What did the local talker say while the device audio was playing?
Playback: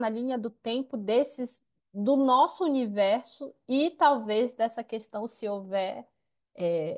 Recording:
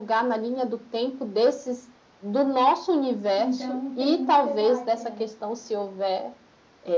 então tem muito debate, né?

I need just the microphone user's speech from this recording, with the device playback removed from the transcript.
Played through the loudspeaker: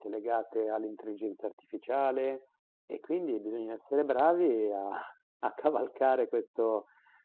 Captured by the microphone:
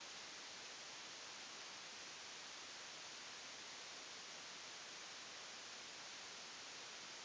none

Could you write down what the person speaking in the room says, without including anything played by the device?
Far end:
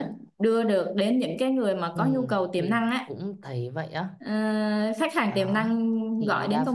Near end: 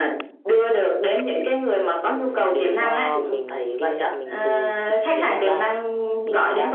đều do mình kinh nghiệm mình từ thực chiến mà ra.

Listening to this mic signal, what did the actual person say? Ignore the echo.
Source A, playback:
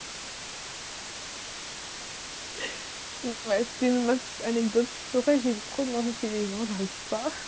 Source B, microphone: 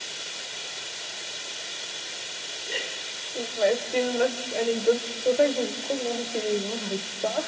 none

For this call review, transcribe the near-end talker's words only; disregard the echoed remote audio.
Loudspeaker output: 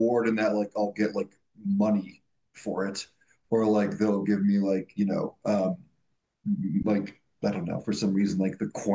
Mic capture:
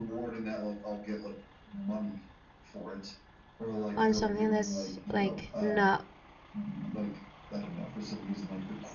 on something that's like not

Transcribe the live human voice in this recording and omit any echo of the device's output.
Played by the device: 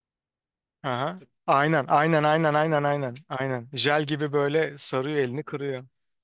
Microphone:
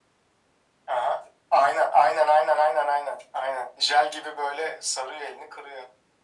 none

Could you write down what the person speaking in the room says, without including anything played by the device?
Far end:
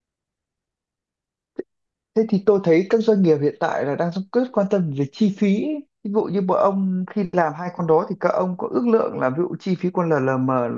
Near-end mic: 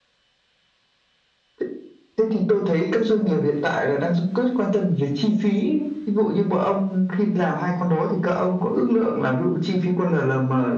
none

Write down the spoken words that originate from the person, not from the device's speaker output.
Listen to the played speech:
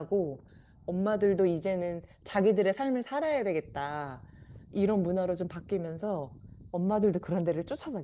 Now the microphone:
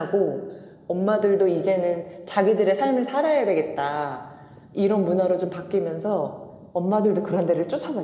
none

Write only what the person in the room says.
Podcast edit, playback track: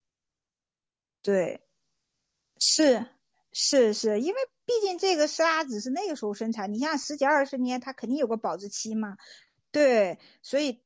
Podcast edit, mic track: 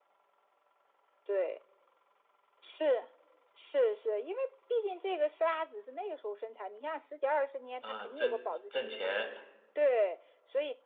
嗯，挣挣钱，

